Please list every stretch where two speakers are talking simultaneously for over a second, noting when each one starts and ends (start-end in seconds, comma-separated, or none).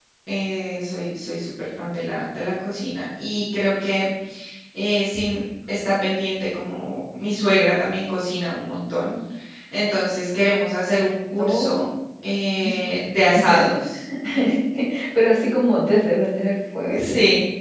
none